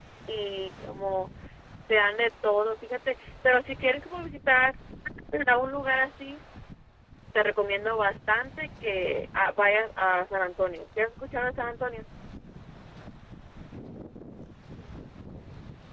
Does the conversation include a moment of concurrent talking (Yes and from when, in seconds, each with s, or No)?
No